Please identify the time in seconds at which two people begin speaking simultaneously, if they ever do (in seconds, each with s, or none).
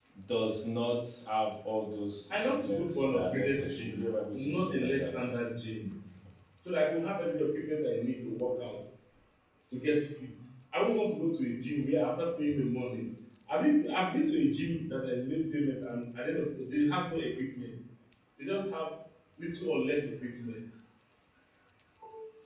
2.3 s